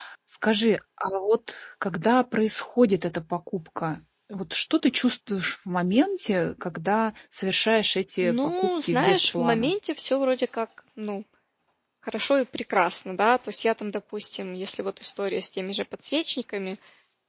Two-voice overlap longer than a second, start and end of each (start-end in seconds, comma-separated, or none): 8.2-9.7